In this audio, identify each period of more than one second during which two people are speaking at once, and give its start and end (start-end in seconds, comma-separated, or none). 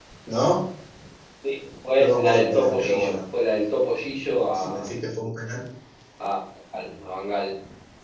2.0-3.2